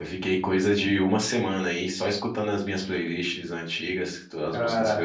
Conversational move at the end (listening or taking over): taking over